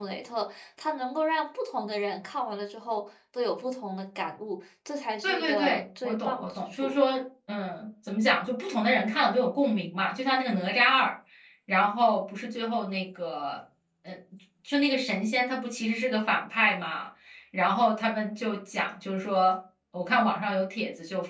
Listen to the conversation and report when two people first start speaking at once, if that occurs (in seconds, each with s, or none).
5.2 s